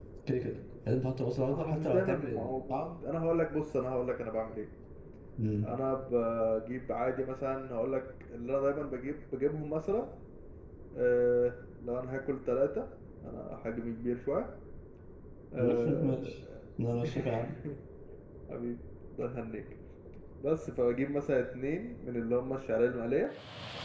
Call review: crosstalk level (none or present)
present